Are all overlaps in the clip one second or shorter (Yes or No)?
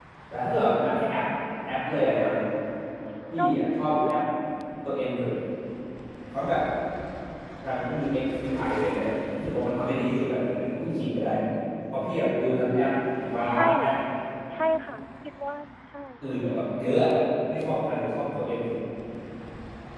Yes